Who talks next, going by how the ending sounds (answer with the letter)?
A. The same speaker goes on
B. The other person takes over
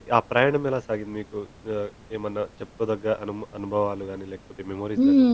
B